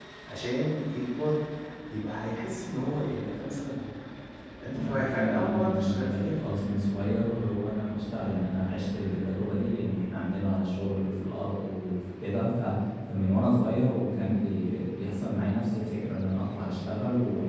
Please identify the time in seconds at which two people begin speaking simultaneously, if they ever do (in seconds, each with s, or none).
4.8 s